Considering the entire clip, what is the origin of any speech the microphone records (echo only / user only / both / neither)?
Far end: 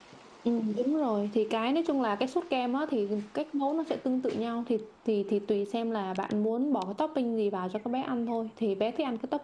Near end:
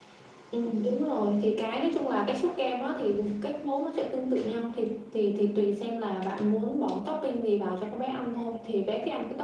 echo only